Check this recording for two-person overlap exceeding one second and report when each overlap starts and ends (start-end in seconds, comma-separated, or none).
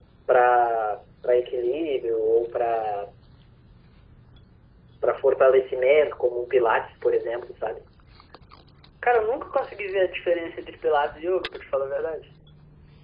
none